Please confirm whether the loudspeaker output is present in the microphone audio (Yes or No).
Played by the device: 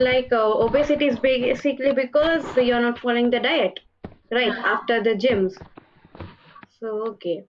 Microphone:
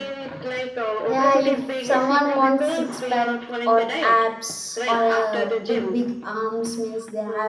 Yes